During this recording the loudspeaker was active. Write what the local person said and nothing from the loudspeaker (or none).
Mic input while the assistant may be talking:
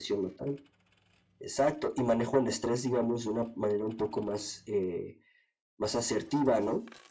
none